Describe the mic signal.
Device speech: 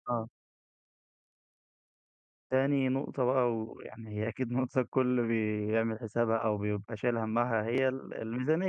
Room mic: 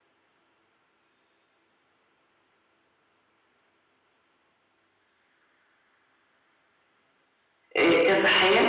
user only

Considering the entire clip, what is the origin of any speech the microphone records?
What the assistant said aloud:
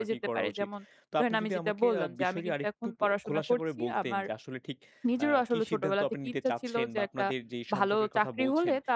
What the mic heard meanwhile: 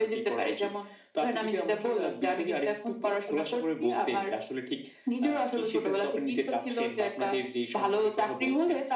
echo only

